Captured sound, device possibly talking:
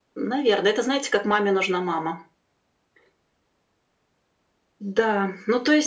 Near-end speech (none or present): none